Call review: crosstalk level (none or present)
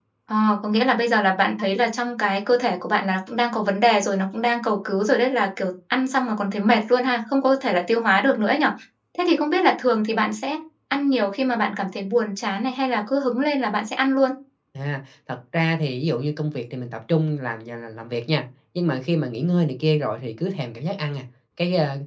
none